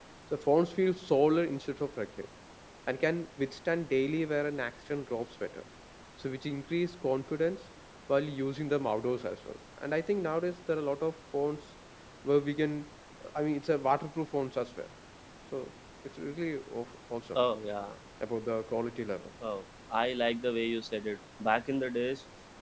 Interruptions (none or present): none